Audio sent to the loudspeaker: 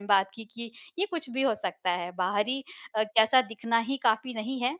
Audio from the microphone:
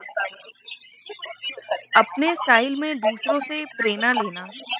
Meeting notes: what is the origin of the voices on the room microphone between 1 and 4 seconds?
both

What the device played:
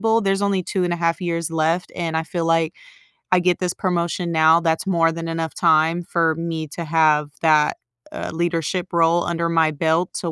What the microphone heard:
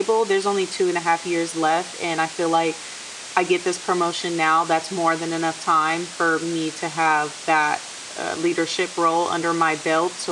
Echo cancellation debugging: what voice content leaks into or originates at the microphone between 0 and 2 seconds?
echo only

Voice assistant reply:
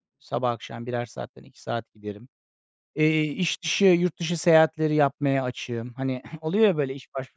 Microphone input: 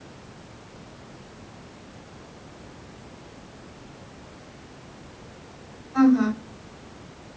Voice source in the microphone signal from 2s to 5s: neither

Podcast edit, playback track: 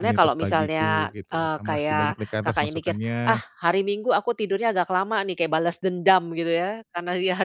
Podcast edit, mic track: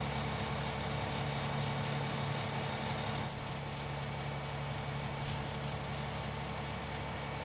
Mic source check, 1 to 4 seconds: neither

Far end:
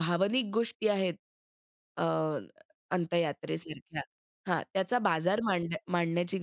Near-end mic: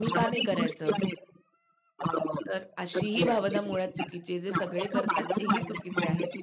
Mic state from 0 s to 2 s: both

